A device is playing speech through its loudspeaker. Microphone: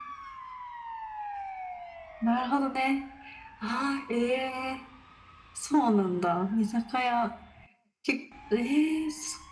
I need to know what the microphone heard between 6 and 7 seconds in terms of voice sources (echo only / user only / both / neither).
echo only